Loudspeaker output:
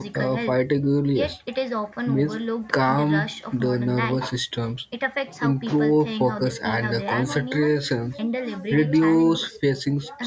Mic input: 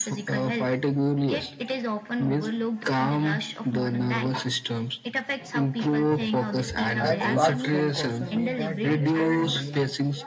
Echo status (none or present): present